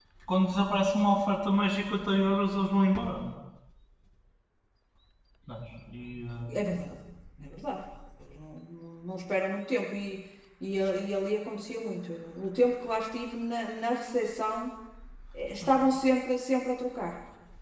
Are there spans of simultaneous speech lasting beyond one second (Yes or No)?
No